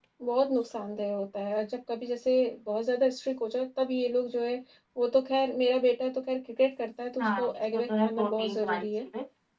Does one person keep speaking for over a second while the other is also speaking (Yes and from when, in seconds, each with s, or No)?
Yes, from 7.2 s